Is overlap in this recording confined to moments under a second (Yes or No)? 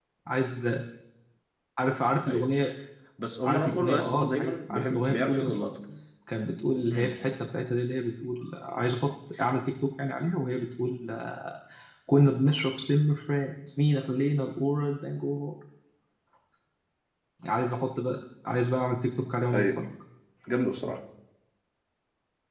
No